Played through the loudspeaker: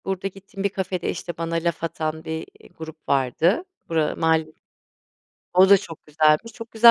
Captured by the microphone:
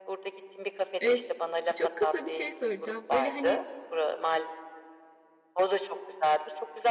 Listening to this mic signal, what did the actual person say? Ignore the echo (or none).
Eee, s çok kısa bir şey soracağım. Böyle, hani,